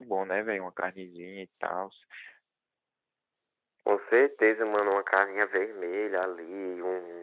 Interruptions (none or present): none